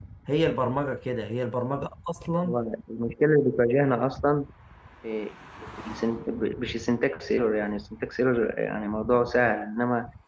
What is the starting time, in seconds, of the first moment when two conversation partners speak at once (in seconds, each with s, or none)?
none